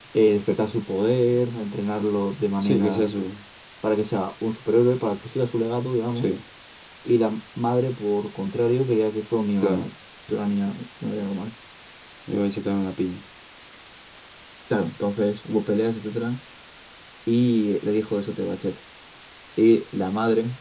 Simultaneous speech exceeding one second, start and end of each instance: none

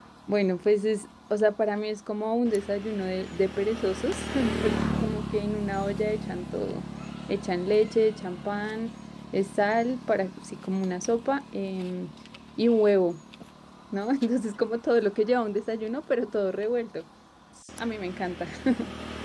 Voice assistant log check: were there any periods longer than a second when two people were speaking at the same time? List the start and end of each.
none

